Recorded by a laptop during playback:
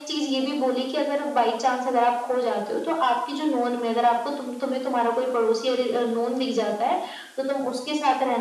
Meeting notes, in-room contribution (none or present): none